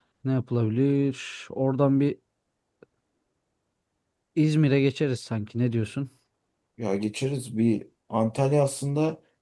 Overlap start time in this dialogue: none

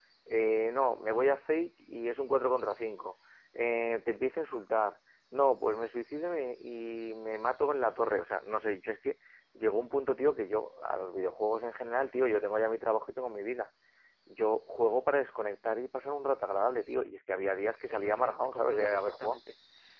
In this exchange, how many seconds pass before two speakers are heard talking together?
17.9 s

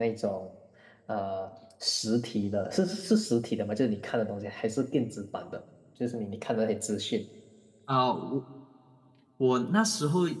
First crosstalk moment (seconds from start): none

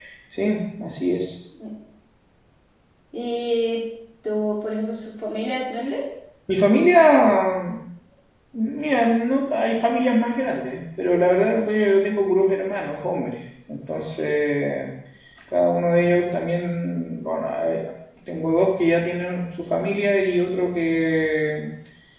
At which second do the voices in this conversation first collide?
none

